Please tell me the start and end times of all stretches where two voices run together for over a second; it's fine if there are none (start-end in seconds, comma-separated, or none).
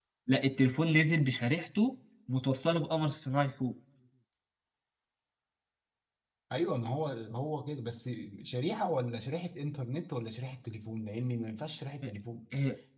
none